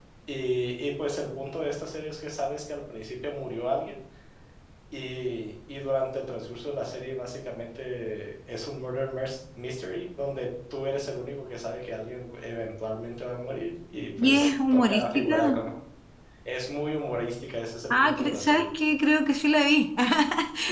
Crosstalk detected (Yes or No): Yes